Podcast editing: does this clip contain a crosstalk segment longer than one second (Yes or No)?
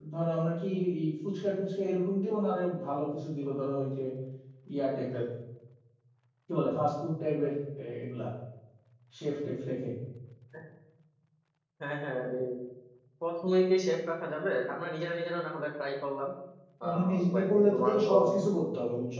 Yes